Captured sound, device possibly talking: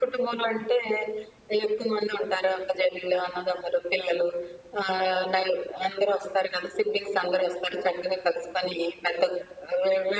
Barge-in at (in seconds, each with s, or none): none